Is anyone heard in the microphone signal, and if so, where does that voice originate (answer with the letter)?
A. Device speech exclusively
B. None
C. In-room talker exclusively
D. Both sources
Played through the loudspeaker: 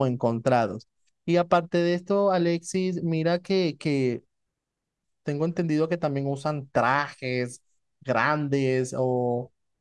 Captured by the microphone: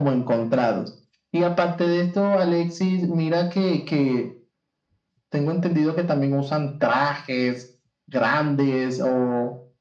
A